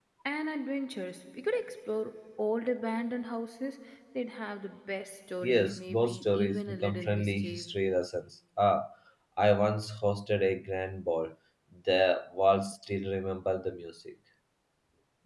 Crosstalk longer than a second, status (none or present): present